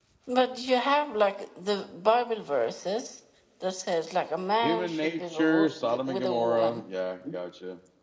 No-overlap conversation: No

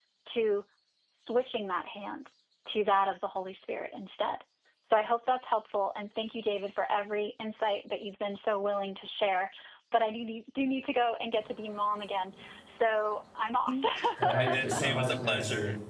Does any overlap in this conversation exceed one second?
Yes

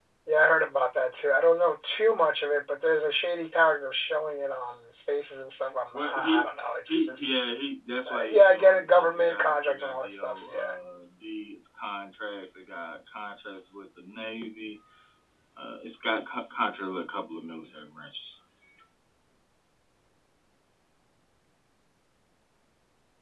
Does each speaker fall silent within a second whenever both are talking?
No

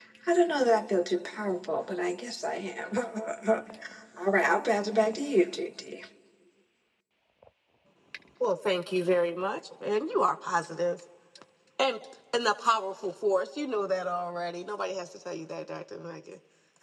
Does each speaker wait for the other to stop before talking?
Yes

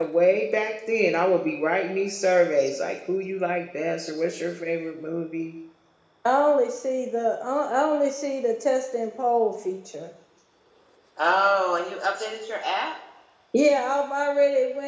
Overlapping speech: No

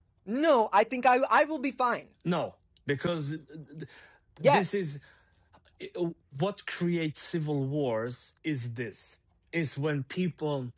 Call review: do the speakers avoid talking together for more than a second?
Yes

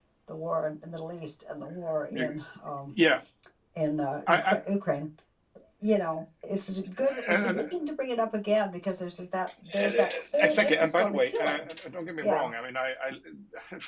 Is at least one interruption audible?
Yes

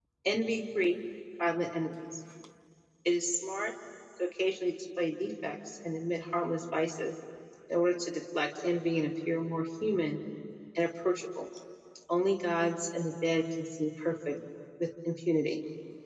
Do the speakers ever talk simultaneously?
No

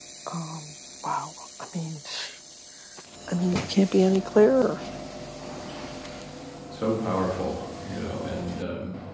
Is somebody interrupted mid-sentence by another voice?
No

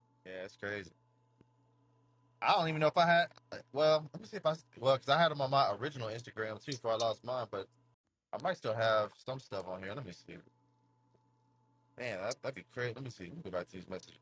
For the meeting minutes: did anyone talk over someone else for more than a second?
No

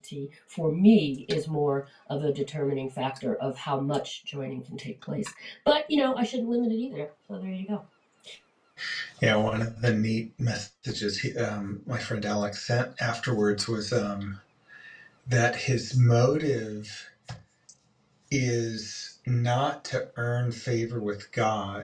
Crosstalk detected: No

